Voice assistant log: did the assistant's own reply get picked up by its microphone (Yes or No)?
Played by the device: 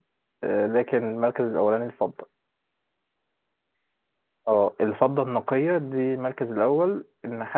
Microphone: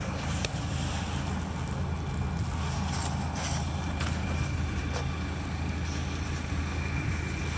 No